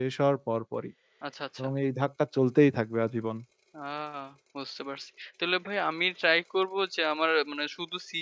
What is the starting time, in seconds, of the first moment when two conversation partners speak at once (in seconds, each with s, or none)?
none